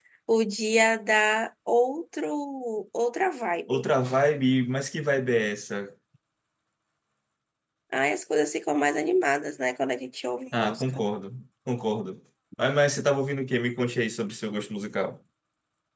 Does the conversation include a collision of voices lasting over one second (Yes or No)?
No